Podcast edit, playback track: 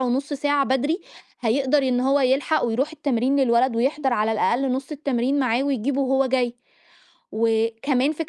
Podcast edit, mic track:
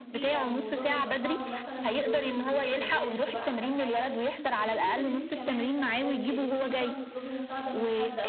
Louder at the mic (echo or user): echo